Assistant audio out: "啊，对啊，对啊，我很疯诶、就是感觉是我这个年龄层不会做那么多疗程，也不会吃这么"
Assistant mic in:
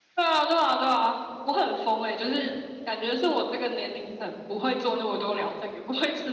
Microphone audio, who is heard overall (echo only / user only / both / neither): echo only